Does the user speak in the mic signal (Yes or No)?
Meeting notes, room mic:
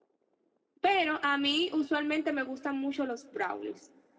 Yes